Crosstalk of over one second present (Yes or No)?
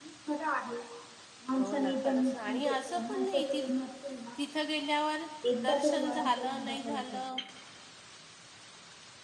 Yes